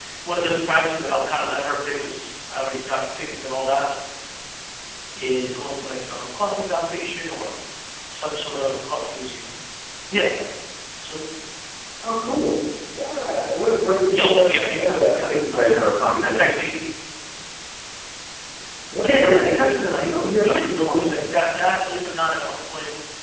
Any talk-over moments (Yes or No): Yes